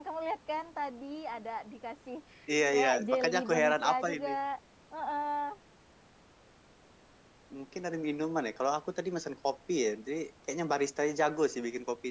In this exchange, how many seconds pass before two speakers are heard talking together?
2.7 s

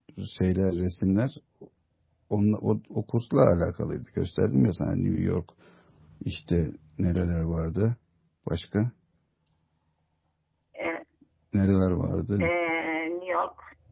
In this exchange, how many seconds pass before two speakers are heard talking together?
none

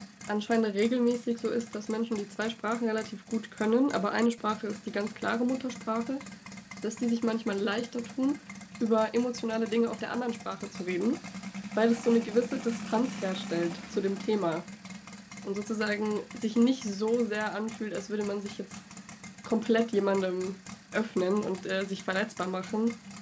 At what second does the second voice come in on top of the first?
none

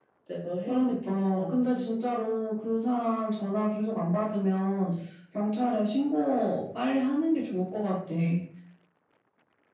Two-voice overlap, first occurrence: 0.7 s

